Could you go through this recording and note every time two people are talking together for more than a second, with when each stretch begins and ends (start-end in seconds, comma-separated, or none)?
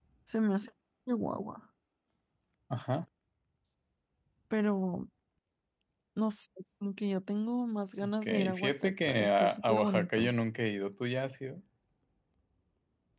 8.0-10.3